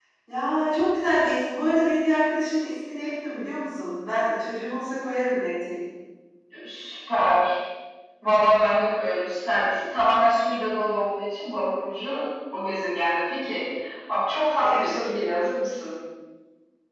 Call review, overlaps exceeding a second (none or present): none